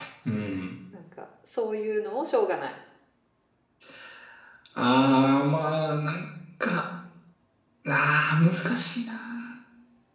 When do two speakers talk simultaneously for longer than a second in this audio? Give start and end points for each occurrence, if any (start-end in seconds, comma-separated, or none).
none